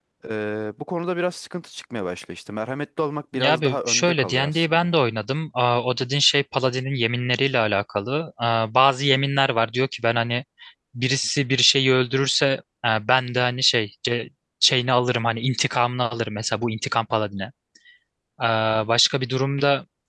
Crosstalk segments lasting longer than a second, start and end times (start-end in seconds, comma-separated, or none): 3.4-4.9